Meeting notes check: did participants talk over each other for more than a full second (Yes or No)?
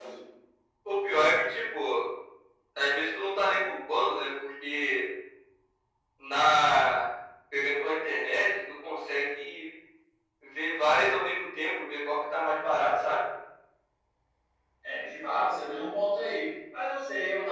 No